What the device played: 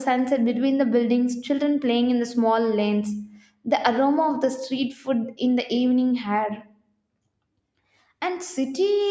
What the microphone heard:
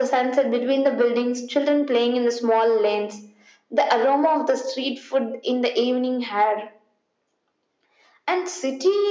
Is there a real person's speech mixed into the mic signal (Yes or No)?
No